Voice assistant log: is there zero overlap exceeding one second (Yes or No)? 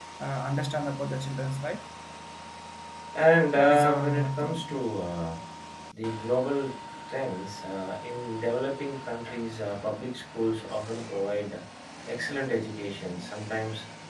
No